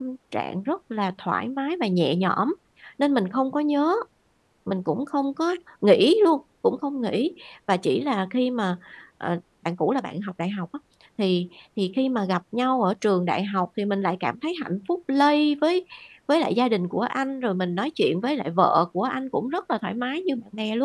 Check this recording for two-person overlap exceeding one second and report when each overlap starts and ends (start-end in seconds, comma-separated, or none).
none